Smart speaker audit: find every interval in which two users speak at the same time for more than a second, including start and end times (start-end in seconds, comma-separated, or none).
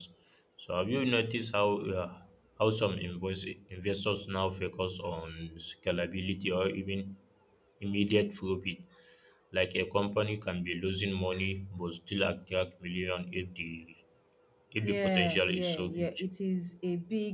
14.8-16.2